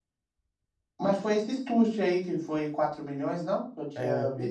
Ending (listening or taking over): taking over